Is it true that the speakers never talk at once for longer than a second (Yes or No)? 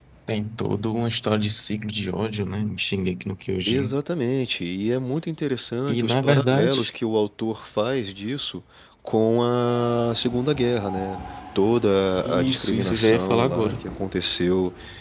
No